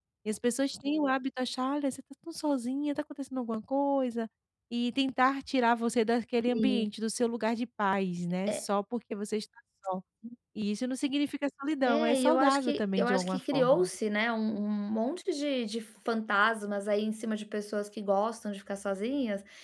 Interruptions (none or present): present